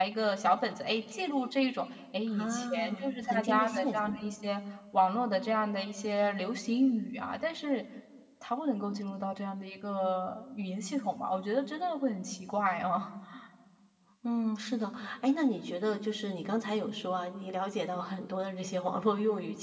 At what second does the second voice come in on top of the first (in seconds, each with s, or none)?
2.4 s